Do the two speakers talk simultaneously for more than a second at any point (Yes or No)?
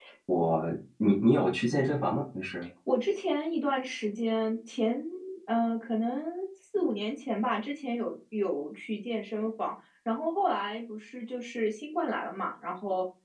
No